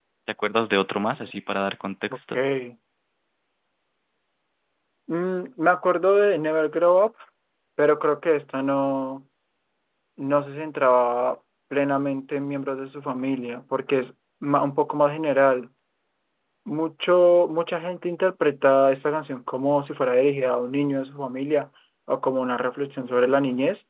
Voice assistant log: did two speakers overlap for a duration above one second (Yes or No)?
No